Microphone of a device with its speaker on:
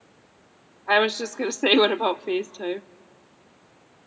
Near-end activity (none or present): present